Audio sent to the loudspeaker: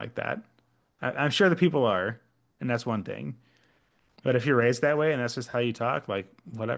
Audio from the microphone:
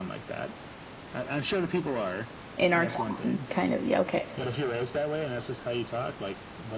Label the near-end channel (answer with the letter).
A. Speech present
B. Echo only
A